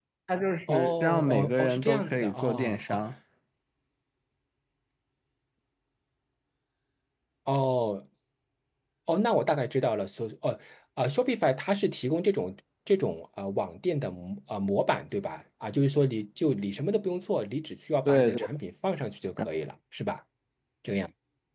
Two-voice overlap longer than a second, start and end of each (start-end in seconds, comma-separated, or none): 0.7-3.0